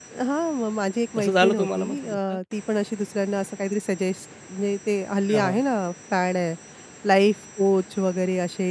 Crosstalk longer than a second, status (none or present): present